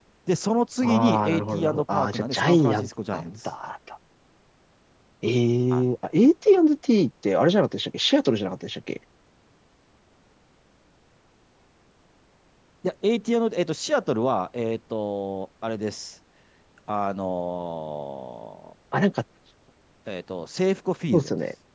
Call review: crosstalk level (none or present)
present